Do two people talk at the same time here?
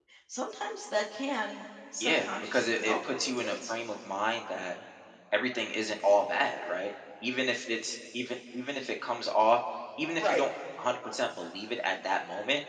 Yes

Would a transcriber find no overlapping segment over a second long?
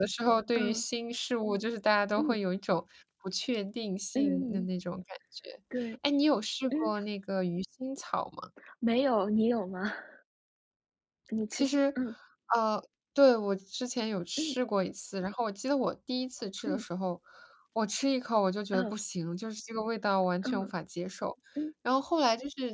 Yes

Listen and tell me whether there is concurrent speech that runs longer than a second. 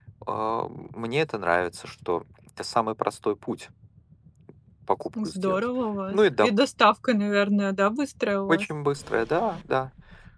No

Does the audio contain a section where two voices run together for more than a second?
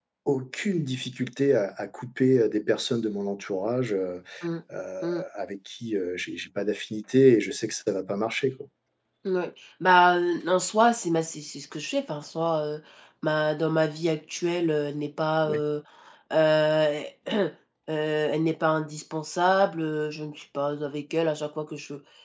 No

